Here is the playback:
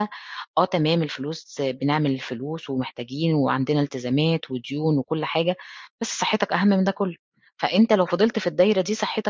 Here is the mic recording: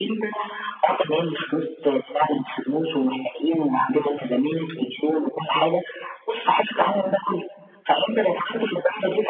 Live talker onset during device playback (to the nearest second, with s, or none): none